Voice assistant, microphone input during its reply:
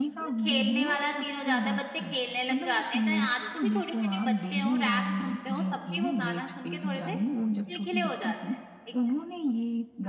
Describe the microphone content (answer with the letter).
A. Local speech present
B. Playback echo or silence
A